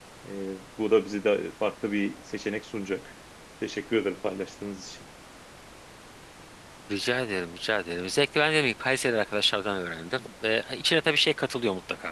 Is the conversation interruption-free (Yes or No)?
Yes